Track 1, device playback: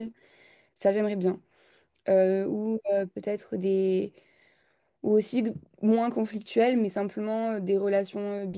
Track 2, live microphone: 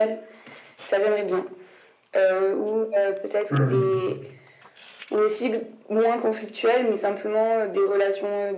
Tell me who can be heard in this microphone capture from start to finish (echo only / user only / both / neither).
both